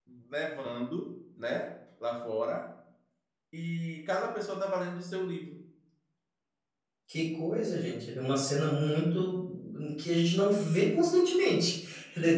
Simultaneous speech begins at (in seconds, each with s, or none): none